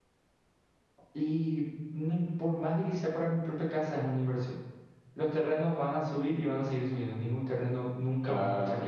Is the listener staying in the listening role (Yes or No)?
No